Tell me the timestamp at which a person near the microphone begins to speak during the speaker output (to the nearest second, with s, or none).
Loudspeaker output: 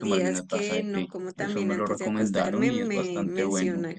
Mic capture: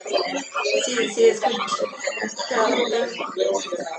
1 s